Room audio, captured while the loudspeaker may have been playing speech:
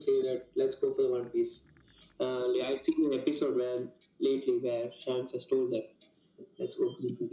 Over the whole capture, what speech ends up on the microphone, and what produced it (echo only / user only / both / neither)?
echo only